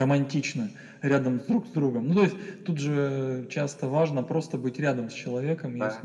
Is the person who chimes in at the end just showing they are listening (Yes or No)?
Yes